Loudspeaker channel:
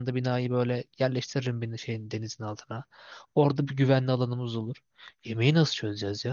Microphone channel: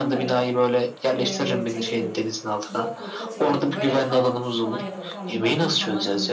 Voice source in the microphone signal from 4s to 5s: both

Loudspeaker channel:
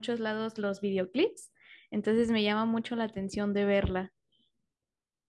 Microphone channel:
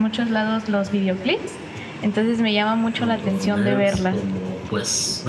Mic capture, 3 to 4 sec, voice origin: both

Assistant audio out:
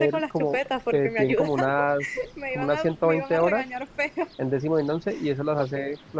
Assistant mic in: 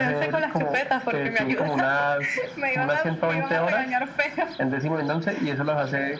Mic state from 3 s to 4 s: echo only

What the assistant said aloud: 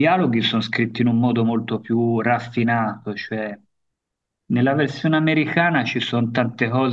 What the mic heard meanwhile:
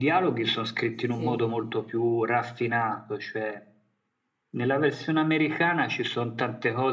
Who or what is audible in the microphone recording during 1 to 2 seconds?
both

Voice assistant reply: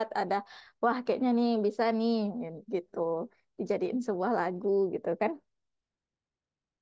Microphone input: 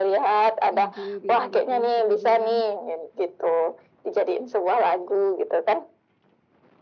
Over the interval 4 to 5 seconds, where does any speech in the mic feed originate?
echo only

